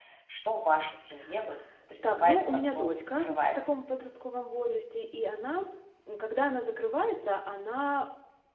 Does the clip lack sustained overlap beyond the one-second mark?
No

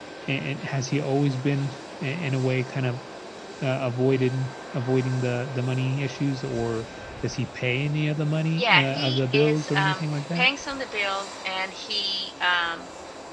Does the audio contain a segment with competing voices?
Yes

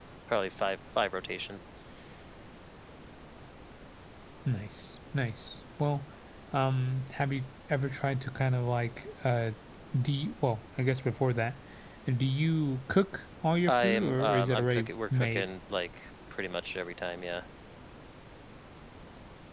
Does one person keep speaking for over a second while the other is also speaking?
Yes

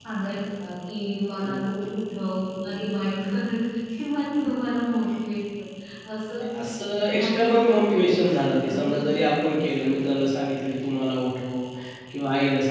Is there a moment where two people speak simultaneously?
Yes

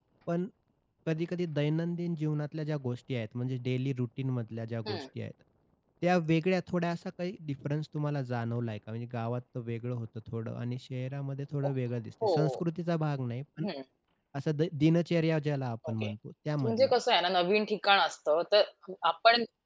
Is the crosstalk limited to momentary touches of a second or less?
Yes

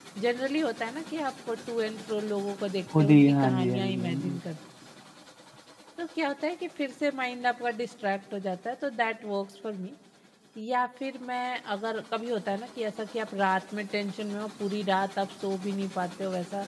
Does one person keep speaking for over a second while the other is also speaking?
Yes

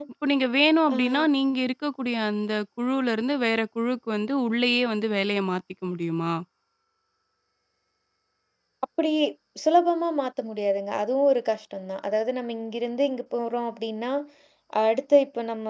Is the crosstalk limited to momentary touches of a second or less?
Yes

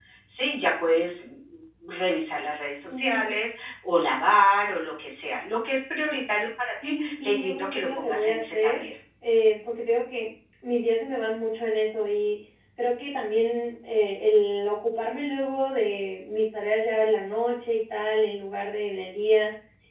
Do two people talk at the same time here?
Yes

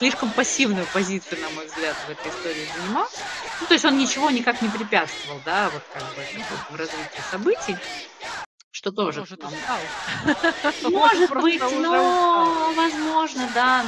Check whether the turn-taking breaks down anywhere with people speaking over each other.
Yes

